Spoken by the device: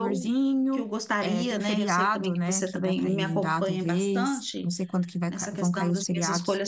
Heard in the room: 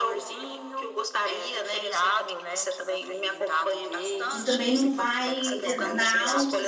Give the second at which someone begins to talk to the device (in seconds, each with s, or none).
4.3 s